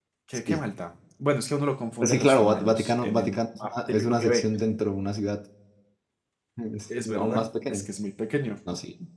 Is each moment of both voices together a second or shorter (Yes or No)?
No